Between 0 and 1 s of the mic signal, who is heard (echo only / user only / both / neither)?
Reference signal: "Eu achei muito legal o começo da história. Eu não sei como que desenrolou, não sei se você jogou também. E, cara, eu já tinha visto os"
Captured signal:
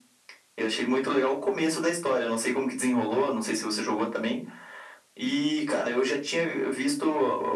echo only